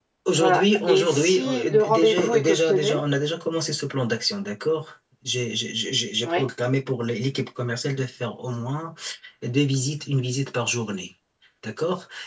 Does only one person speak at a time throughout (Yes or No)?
No